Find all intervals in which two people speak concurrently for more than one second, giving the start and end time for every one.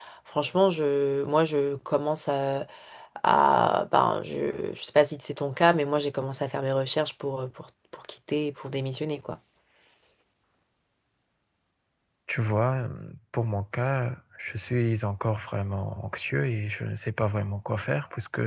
none

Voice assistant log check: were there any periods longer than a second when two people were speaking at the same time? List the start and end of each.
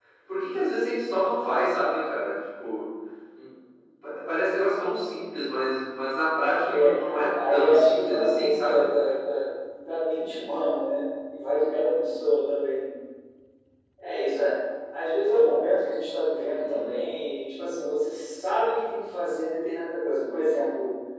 6.7-8.9

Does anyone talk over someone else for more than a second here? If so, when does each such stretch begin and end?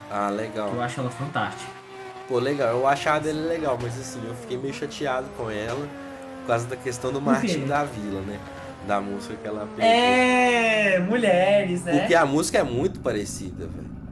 none

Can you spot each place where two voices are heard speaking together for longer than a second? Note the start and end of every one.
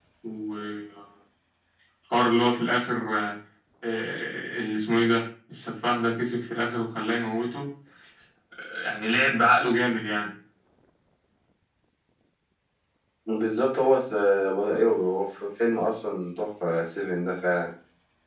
none

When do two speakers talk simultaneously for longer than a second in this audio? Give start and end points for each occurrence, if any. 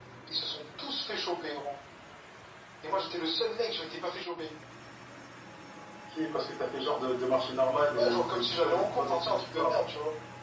8.0-9.7

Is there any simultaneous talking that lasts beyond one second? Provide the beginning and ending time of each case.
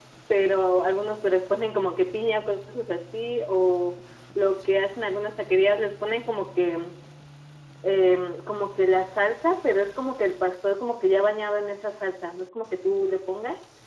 none

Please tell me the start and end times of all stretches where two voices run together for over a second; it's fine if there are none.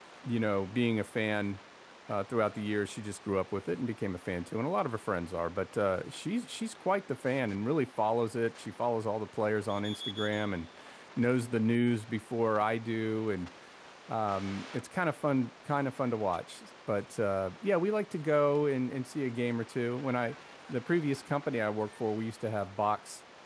none

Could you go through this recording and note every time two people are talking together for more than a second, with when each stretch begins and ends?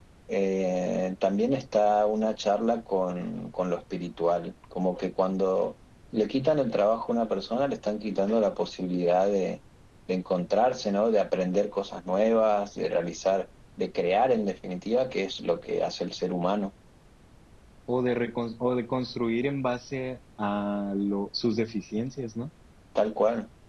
none

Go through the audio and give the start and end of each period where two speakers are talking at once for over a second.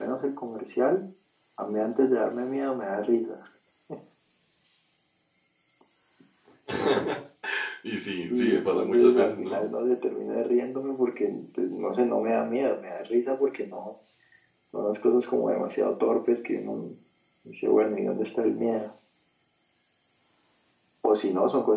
8.3-9.7

